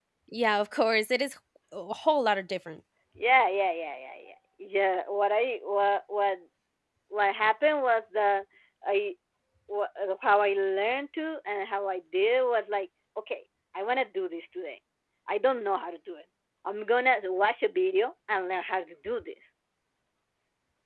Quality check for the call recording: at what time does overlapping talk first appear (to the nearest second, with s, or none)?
none